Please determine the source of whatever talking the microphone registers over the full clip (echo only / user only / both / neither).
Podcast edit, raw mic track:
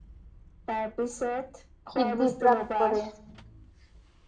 both